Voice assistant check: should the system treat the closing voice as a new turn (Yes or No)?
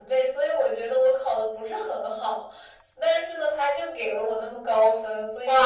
Yes